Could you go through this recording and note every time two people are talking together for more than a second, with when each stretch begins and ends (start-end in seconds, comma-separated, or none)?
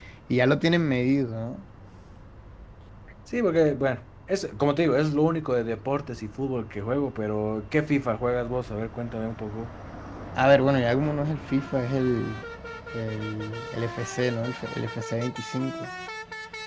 none